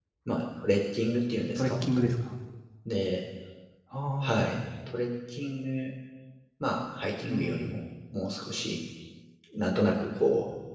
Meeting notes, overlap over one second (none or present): none